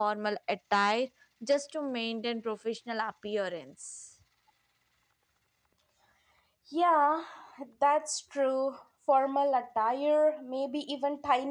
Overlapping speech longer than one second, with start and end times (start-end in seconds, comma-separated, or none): none